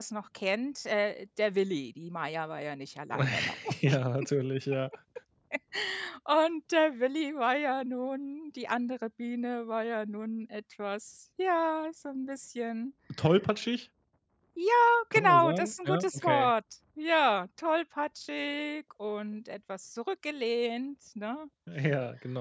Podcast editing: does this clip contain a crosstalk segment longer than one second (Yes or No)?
Yes